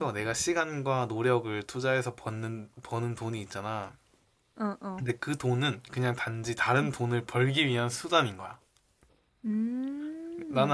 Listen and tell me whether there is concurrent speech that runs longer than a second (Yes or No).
No